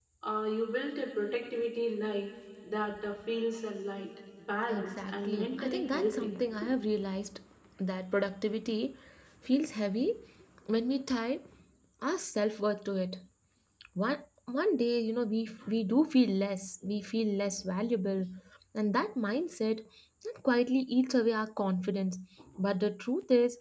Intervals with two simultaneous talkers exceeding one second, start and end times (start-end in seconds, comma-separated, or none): 4.7-6.3